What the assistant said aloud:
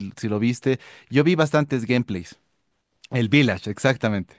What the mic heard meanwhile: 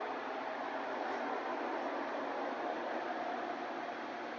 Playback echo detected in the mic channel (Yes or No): No